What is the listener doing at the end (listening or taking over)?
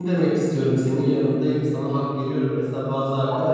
listening